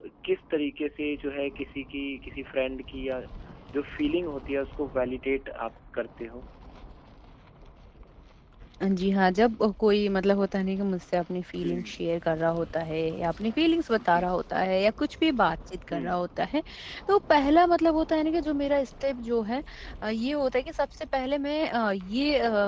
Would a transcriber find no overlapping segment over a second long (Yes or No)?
Yes